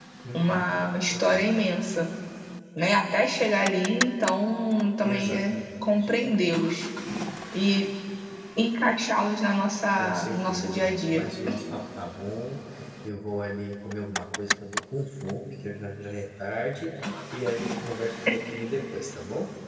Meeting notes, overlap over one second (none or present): present